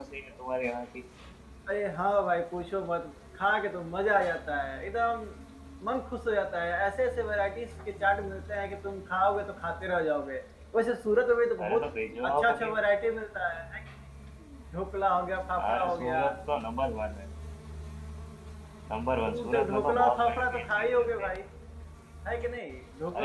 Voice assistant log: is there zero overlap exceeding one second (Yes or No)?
No